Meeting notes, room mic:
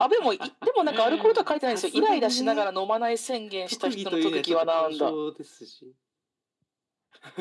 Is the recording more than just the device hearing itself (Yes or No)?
No